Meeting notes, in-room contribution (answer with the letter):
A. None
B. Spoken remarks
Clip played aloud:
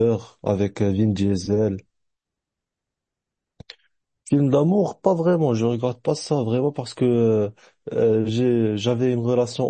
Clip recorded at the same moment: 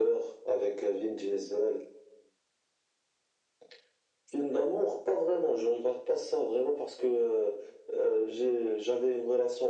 A